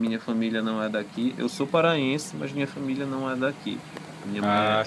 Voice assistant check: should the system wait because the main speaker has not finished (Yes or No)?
Yes